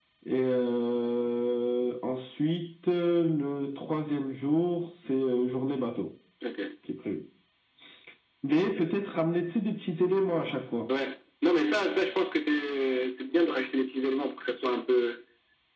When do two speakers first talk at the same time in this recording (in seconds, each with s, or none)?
none